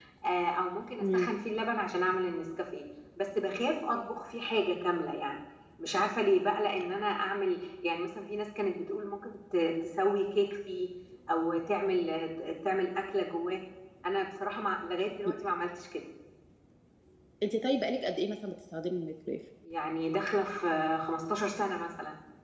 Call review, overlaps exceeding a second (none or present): none